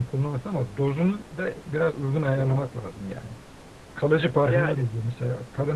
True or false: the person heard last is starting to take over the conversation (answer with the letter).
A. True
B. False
B